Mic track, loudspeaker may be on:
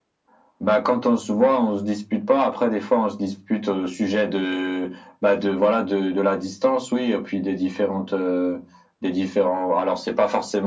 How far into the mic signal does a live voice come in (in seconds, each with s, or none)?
none